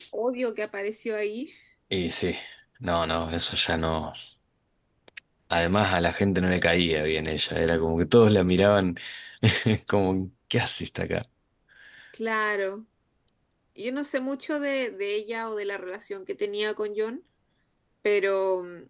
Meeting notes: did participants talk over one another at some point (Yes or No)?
No